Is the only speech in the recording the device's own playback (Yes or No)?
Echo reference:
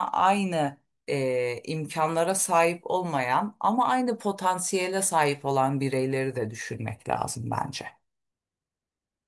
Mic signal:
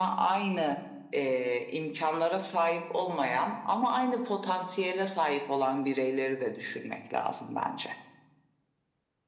Yes